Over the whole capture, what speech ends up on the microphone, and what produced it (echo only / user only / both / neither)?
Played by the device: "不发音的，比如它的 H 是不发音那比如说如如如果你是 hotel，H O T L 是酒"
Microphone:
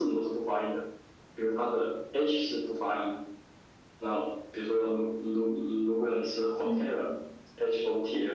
both